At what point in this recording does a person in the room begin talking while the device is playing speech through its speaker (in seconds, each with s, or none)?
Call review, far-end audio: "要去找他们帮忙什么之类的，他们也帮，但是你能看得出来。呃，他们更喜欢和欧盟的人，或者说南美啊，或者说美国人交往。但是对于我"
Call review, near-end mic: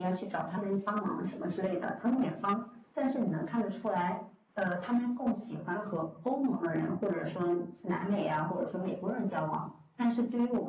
none